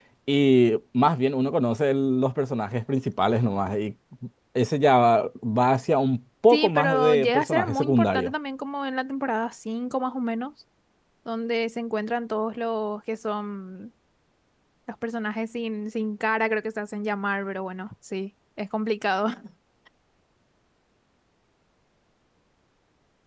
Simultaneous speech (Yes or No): Yes